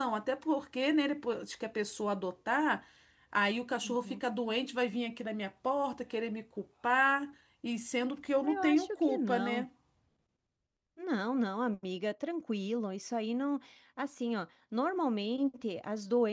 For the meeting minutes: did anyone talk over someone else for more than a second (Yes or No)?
Yes